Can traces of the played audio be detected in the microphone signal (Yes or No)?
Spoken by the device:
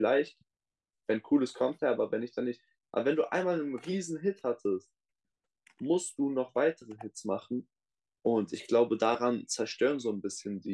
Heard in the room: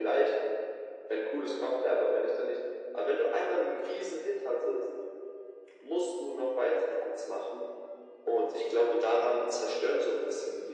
Yes